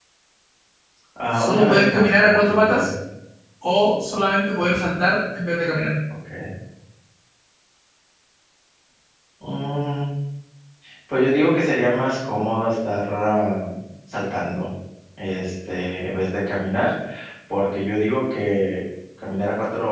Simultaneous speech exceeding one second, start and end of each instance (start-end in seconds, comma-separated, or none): 1.3-2.9